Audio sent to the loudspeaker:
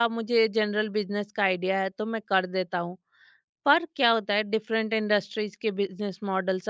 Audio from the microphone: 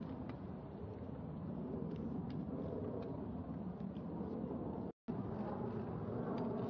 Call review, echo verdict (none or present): none